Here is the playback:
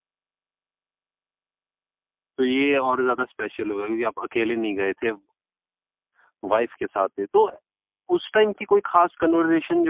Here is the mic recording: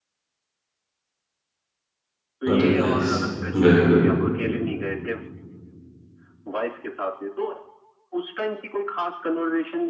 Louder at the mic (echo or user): user